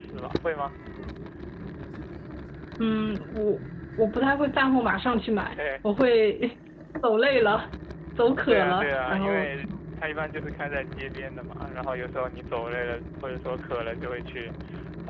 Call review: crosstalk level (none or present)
present